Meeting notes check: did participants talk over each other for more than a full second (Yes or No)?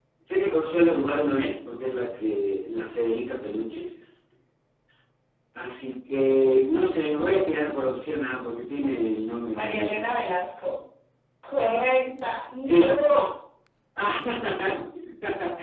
No